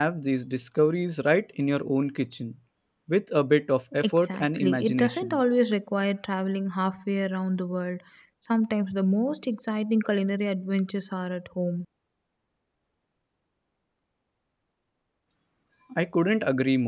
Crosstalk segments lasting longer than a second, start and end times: 4.2-5.4

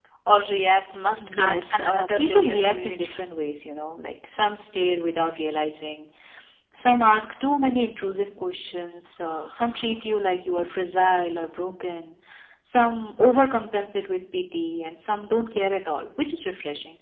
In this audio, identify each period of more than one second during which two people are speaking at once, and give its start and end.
1.2-3.1

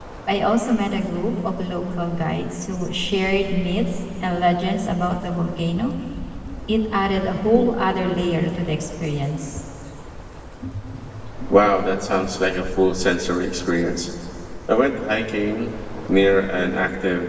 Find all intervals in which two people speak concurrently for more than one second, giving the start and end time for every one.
none

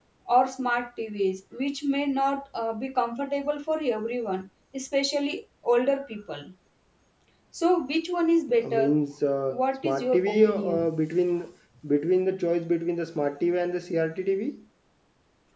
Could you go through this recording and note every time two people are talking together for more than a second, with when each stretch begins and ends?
9.5-10.9

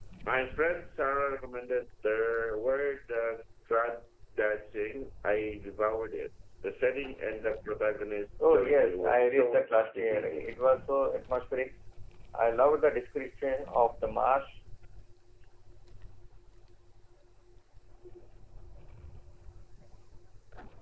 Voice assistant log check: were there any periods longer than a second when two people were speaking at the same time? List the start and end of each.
8.5-10.5

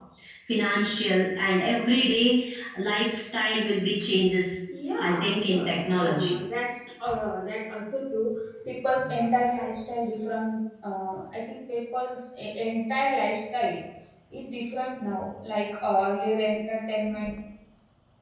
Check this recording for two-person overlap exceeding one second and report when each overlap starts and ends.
5.0-6.3

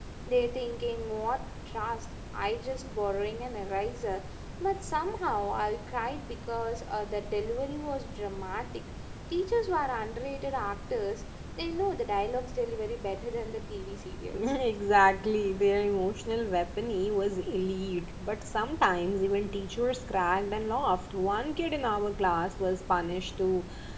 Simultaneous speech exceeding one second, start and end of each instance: none

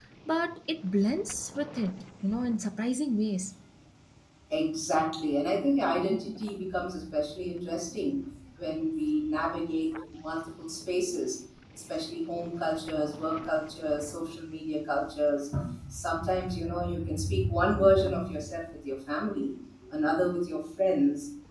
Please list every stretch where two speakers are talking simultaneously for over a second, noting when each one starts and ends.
none

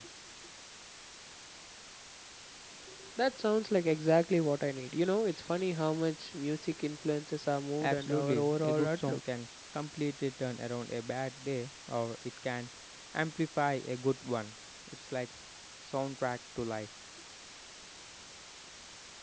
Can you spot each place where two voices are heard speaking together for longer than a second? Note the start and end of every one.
7.8-9.2

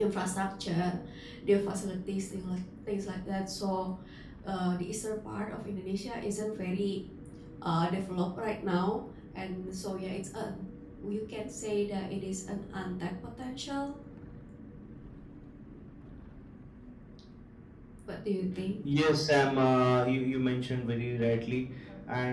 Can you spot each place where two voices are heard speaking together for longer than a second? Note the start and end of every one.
none

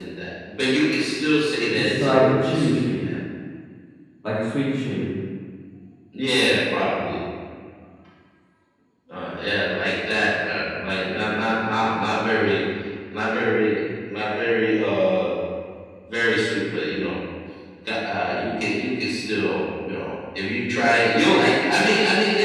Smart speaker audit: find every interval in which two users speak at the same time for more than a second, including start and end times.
1.8-3.0

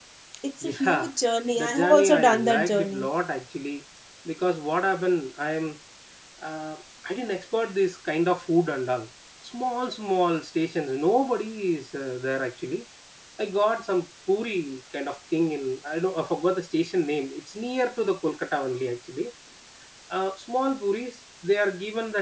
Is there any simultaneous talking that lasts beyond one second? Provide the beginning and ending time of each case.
1.6-3.1

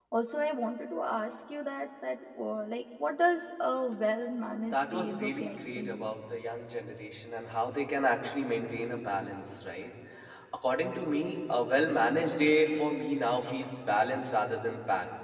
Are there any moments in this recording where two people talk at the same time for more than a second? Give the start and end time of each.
4.6-6.1

